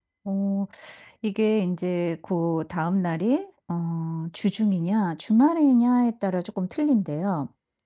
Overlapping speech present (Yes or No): No